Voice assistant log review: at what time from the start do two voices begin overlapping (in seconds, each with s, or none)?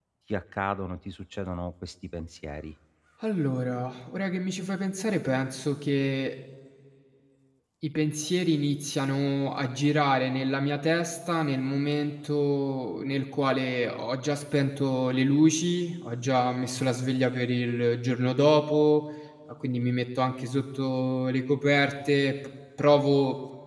none